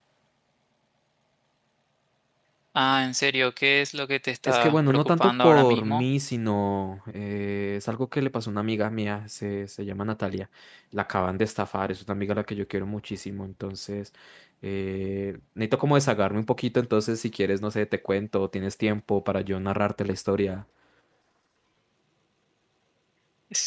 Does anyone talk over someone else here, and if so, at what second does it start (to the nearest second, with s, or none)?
4 s